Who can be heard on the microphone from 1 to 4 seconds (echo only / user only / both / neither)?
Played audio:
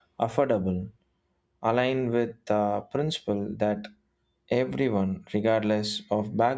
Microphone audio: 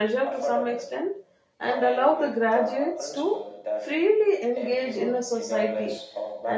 both